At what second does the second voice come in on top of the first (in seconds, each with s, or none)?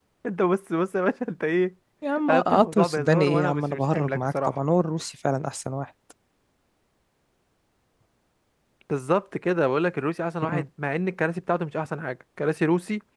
2.3 s